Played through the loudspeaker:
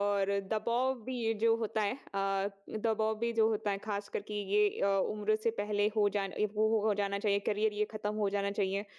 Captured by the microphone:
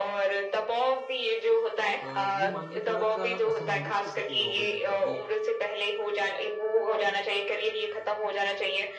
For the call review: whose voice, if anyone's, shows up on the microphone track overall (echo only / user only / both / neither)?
both